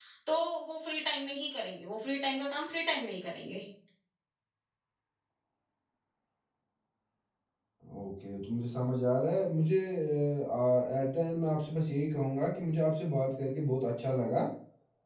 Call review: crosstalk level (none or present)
none